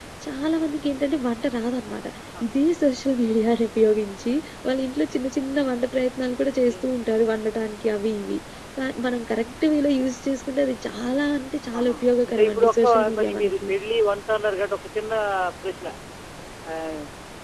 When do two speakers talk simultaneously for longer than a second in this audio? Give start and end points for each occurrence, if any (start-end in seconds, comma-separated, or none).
11.8-13.7